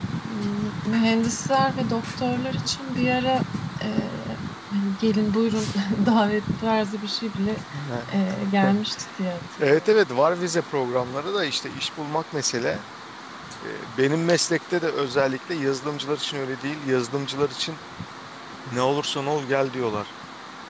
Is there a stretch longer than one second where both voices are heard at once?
No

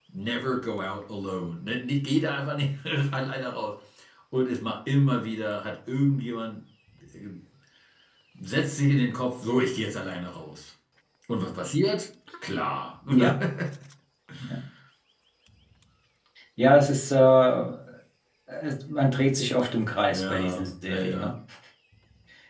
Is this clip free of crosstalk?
No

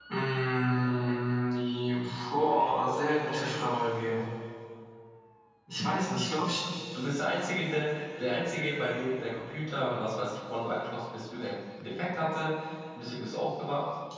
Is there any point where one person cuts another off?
No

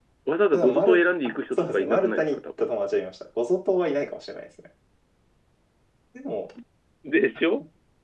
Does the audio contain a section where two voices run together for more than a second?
Yes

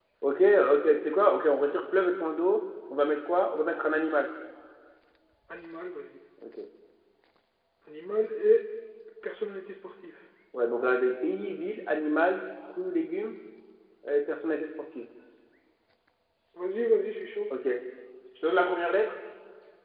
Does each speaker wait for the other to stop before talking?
Yes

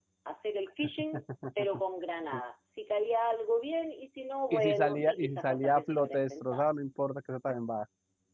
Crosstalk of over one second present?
Yes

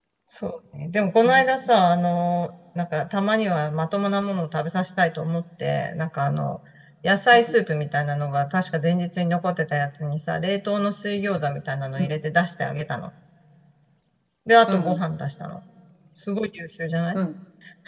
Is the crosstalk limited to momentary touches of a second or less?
Yes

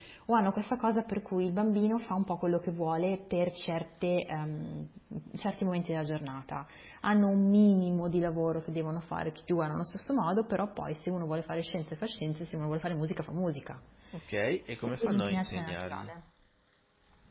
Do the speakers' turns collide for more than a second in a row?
Yes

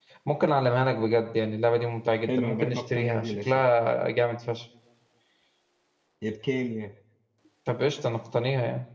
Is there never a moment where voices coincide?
No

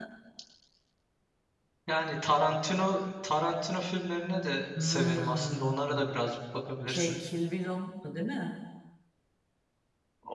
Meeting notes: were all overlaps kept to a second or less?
No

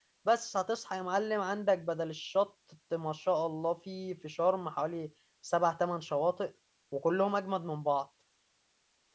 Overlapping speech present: No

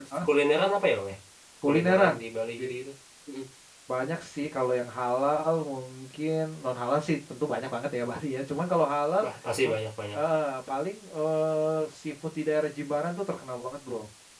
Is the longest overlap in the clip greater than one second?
No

